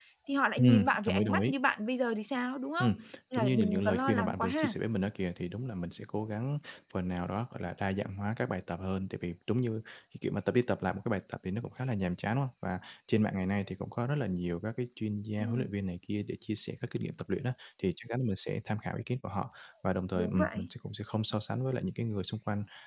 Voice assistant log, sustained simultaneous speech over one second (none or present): present